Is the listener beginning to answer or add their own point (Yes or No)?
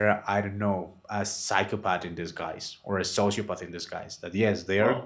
No